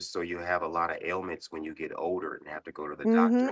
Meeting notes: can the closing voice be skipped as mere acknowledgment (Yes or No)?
No